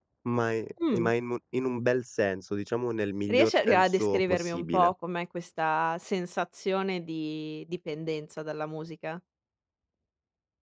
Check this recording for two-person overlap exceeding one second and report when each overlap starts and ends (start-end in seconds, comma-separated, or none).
3.3-4.9